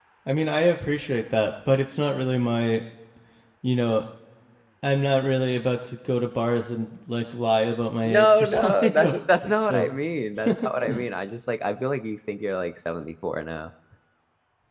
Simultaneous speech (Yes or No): Yes